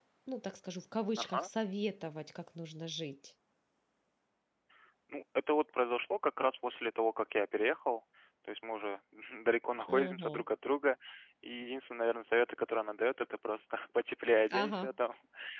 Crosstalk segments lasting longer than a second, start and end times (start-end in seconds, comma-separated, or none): none